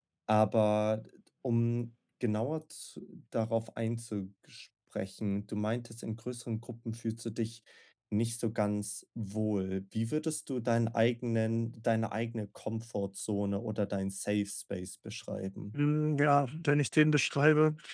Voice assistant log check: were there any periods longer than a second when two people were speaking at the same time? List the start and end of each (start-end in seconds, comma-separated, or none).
none